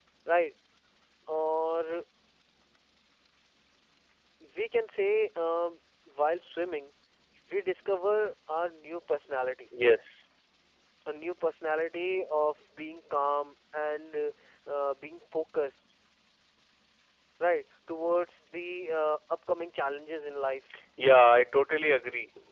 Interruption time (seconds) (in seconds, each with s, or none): none